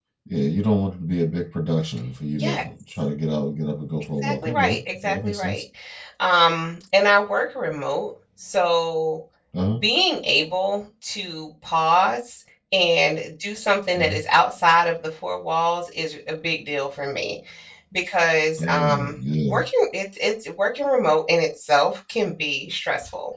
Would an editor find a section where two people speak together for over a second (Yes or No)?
Yes